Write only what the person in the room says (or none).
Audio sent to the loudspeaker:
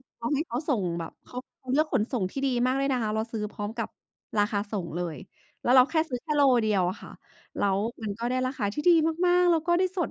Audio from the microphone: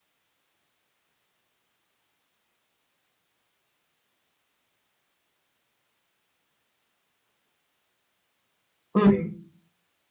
ืม